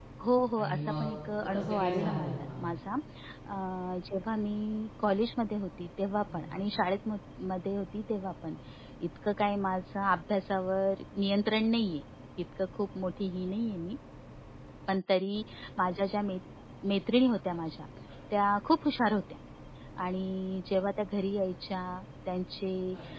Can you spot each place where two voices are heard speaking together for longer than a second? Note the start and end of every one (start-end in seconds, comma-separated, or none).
1.4-2.6